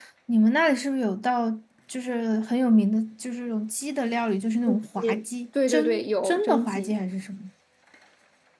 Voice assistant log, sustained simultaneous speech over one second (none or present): present